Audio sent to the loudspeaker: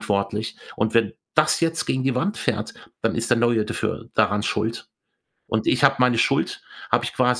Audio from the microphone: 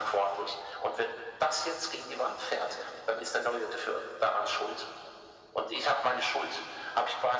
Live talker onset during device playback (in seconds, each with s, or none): none